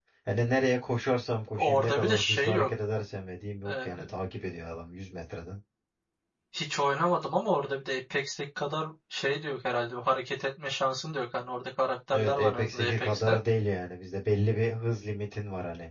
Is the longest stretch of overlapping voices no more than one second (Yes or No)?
No